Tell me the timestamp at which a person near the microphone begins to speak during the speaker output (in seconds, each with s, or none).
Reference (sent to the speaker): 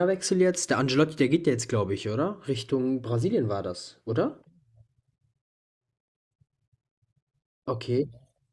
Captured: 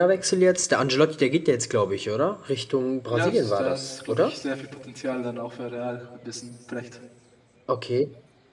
3.1 s